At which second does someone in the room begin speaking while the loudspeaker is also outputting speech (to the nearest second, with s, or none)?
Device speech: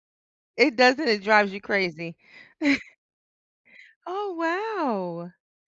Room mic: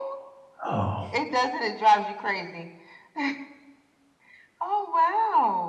1 s